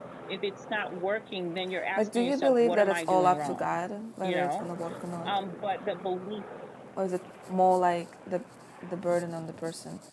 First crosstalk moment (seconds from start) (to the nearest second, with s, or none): 2 s